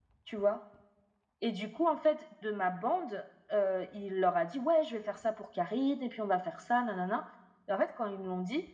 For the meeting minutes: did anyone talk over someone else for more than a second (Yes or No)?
No